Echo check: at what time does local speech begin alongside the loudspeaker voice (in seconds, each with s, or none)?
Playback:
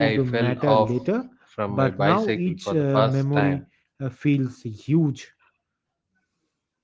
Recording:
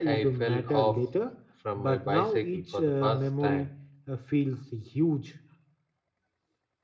none